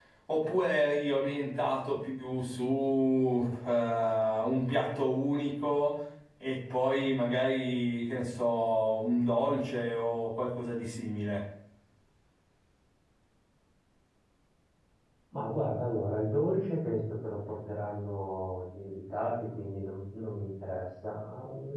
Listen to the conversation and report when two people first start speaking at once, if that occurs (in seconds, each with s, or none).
none